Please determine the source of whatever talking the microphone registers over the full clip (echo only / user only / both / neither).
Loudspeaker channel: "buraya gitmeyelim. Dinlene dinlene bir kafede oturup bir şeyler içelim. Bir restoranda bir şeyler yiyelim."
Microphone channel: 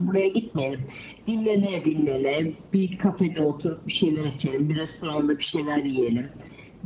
echo only